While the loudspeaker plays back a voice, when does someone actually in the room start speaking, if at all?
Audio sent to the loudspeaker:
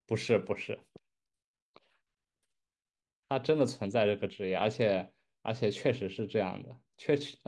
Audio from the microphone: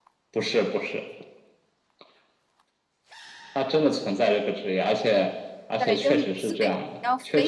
5.8 s

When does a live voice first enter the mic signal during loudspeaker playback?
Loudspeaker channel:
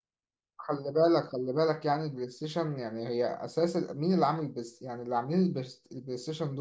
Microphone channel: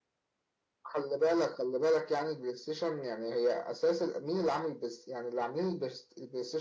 none

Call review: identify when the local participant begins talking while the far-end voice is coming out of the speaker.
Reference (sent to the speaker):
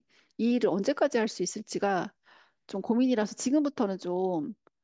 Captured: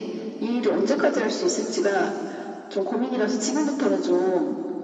none

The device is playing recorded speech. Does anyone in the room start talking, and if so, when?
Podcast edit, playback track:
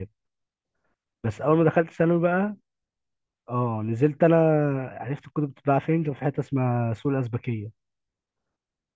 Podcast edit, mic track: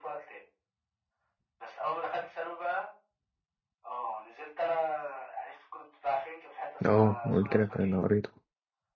6.9 s

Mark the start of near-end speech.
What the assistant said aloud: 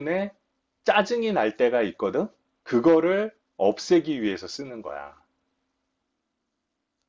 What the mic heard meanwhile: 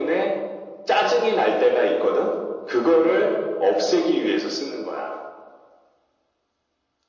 none

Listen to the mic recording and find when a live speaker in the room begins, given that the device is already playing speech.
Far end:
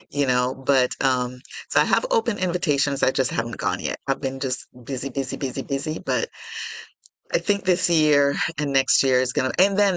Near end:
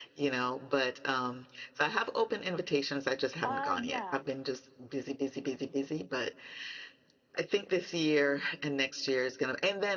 3.4 s

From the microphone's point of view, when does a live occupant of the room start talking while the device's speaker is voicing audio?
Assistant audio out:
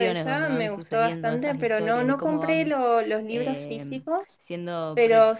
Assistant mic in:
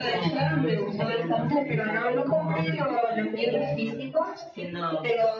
none

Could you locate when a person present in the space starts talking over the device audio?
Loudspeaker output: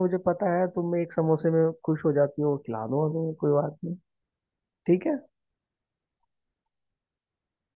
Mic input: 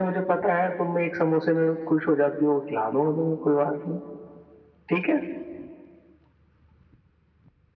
none

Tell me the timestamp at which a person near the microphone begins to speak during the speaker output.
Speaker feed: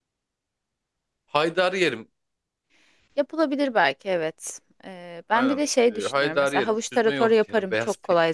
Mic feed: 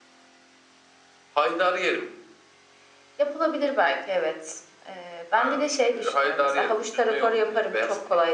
none

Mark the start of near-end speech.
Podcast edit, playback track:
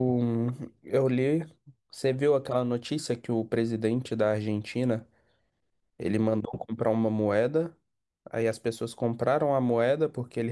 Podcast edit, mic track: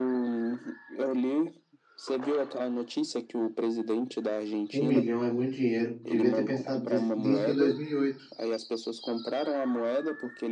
4.7 s

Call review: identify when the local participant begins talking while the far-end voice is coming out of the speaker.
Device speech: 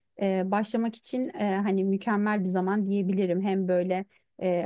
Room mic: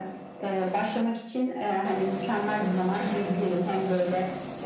none

